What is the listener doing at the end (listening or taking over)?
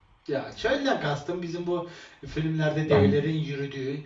listening